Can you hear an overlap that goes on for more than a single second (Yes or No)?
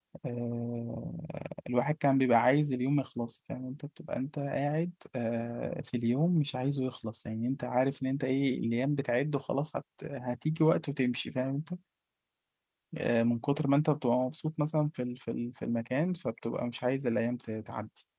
No